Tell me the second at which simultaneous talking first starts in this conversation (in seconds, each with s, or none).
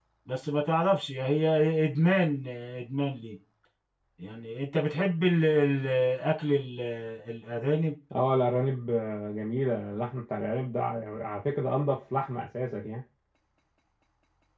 none